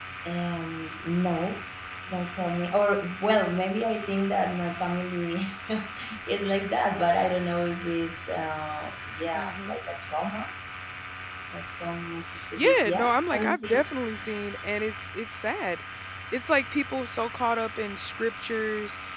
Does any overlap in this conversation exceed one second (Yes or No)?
Yes